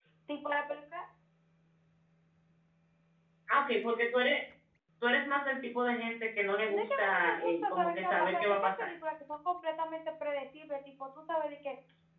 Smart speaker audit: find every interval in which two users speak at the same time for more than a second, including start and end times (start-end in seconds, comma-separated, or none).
6.7-8.9